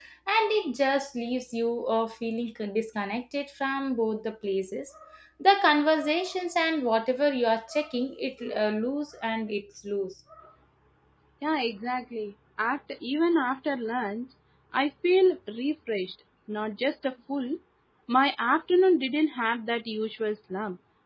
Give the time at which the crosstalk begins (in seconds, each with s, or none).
none